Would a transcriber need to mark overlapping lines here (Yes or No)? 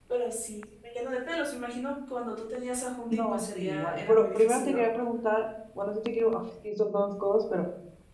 Yes